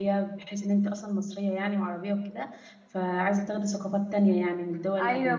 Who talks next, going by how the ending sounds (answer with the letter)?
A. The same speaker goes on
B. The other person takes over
B